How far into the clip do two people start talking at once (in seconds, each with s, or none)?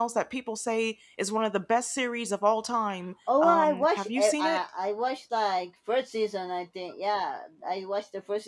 3.3 s